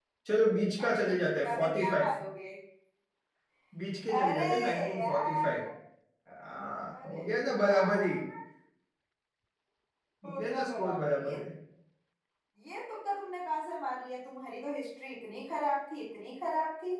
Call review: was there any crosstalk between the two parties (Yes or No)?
Yes